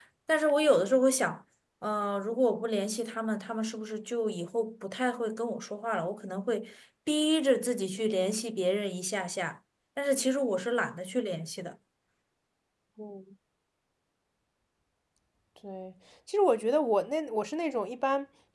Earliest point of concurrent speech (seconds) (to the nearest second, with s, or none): none